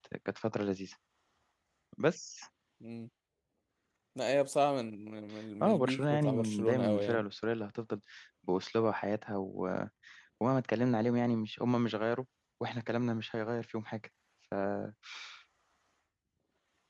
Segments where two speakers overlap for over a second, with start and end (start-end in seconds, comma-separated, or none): 5.6-7.2